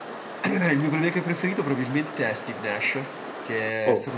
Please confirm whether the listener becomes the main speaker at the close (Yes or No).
No